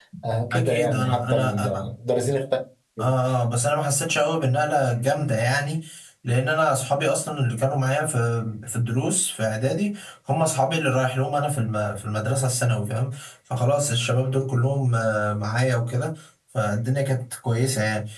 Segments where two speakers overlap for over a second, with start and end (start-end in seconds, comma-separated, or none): 0.5-1.9